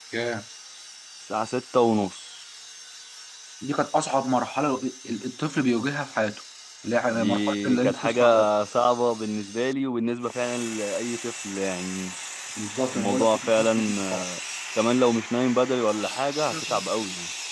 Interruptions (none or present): present